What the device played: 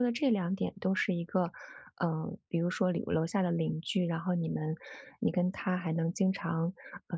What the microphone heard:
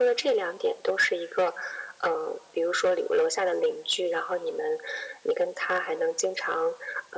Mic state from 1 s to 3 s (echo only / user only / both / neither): echo only